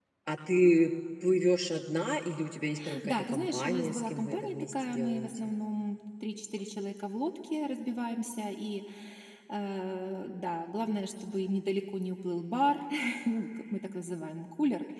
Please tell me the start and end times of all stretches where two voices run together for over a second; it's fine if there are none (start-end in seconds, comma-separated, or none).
3.0-5.5